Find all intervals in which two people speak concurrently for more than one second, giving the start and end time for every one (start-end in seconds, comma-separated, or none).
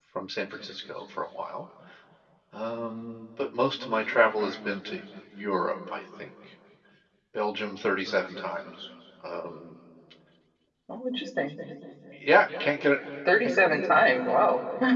none